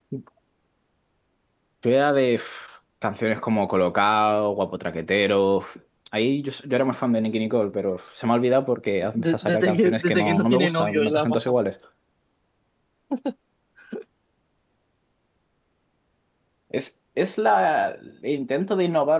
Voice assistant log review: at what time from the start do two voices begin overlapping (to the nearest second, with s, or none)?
9 s